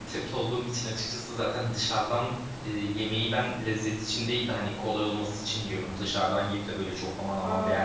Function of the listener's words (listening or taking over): taking over